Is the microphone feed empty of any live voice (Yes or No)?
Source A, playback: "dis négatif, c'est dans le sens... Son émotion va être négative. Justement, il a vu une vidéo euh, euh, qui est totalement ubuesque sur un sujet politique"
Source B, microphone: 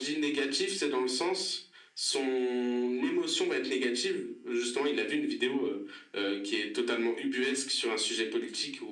Yes